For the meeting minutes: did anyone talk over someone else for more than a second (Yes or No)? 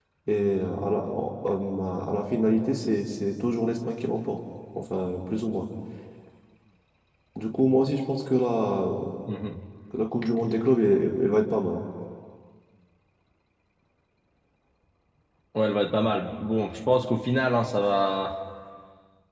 No